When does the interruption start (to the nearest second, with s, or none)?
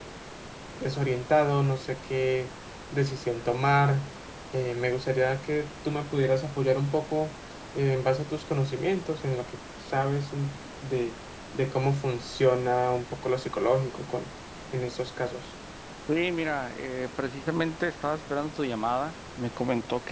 none